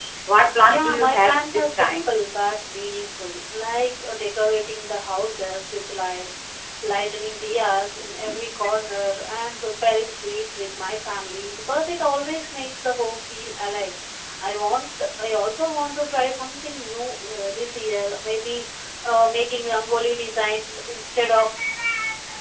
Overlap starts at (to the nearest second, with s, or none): 1 s